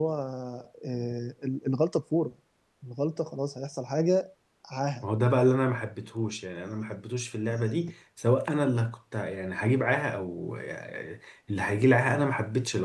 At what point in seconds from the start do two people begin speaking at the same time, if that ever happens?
none

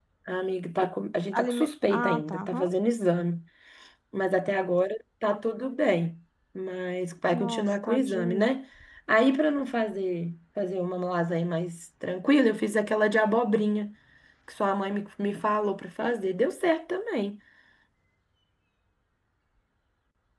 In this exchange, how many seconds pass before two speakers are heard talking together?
1.4 s

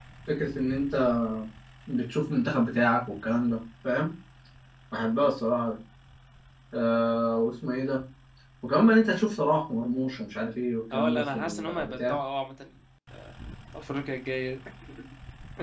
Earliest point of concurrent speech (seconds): 10.9 s

